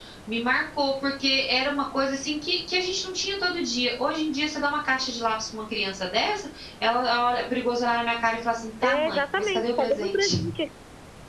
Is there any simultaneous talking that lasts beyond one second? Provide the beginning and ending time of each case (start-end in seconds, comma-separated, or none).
8.8-10.4